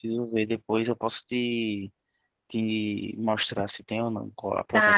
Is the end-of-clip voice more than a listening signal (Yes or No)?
Yes